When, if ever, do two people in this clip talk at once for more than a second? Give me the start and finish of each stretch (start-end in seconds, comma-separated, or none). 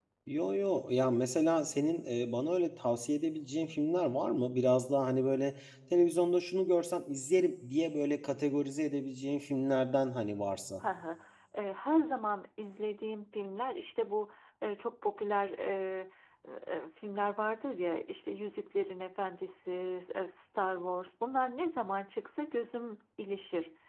none